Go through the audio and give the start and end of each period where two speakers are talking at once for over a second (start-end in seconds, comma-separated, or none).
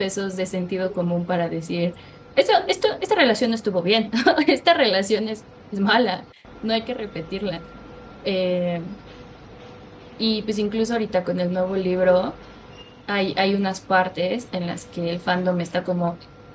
none